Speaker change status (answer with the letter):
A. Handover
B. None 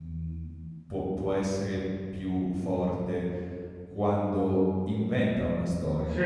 B